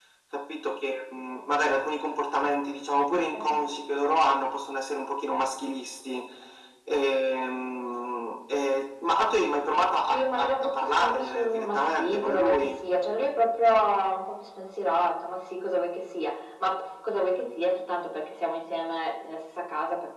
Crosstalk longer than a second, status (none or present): present